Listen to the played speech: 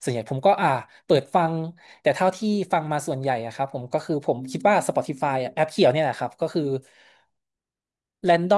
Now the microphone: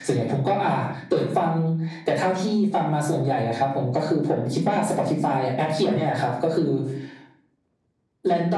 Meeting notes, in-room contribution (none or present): none